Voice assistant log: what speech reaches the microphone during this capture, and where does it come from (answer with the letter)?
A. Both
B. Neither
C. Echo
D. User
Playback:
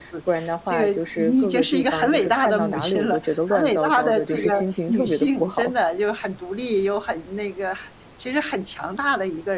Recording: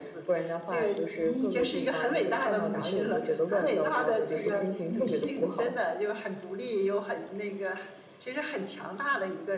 C